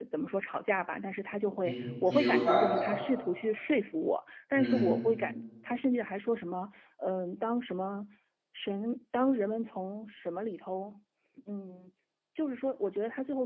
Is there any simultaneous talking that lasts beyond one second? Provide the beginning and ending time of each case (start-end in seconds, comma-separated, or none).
1.6-3.0